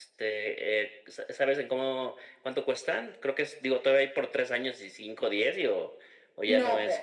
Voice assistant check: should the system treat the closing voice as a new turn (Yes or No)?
Yes